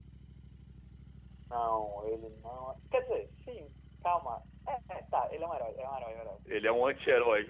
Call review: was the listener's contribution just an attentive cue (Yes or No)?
No